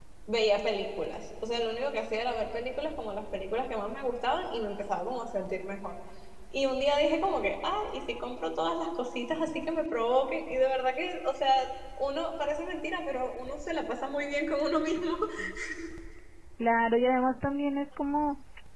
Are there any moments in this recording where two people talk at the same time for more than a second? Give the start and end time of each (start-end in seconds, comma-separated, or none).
none